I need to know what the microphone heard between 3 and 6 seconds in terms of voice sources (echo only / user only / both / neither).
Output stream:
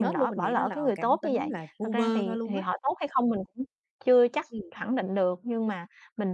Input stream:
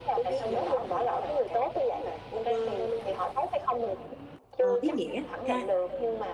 both